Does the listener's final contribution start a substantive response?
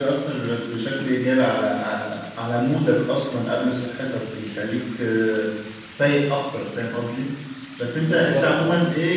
No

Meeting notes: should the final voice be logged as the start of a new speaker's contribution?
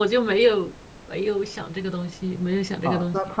Yes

